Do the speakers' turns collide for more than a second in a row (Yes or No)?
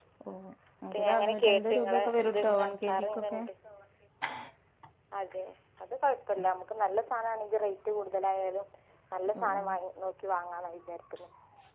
Yes